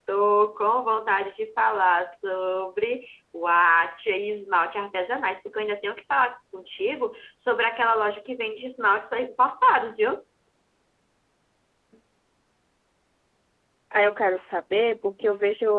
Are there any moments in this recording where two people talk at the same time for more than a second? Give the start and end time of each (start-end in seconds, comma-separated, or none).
none